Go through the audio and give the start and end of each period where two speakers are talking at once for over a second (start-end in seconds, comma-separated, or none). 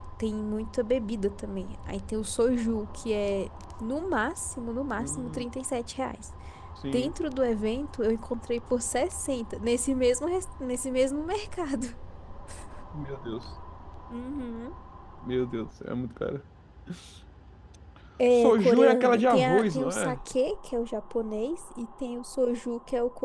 18.3-20.2